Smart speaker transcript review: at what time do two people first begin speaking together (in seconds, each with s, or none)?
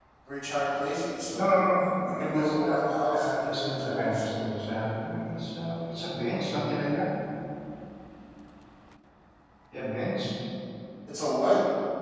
1.4 s